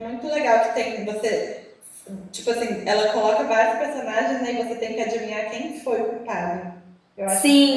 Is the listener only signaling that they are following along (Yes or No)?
No